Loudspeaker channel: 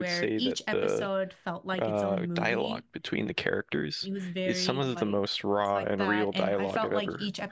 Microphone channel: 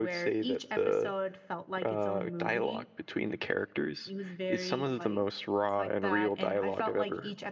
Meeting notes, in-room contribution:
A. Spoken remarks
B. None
B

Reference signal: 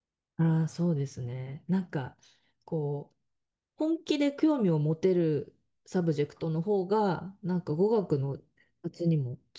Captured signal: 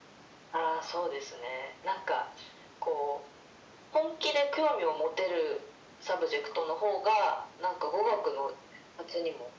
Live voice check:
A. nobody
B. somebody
A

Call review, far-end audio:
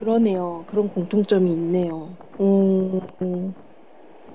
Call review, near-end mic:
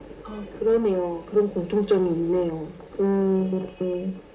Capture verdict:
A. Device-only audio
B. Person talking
A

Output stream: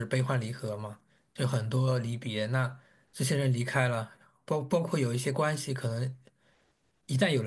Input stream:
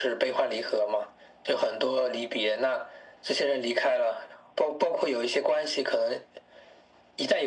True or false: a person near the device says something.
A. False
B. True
A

